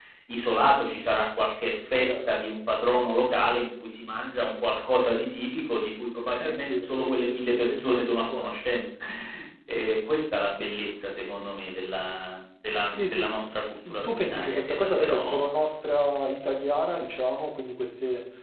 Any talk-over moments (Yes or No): Yes